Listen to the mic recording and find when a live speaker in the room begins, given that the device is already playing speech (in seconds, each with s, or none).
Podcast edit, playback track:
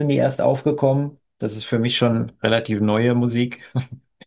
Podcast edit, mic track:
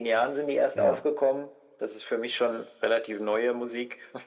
0.7 s